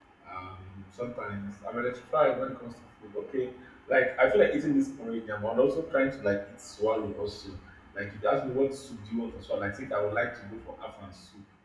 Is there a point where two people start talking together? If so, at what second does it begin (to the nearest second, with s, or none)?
none